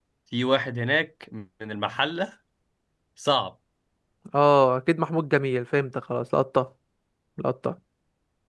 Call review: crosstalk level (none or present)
none